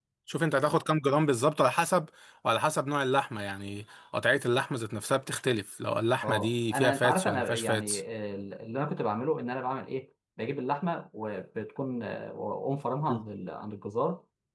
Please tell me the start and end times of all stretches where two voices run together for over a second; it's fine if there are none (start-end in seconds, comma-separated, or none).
6.2-8.0